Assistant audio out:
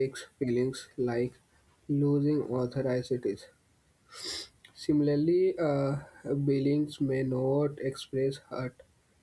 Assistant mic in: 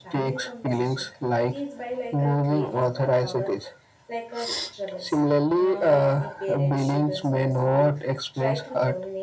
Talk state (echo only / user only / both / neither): both